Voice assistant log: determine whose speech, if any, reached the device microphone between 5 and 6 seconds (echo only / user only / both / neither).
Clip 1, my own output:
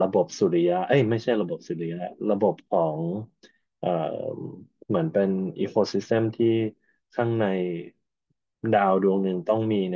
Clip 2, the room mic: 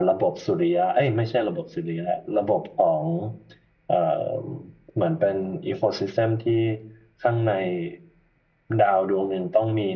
echo only